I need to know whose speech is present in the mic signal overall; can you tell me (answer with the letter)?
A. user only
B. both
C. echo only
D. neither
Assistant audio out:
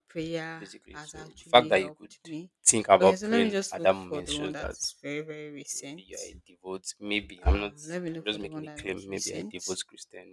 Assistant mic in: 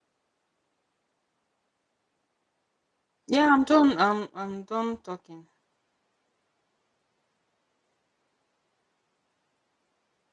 A